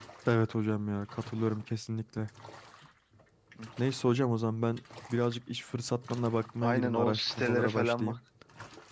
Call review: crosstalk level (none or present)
present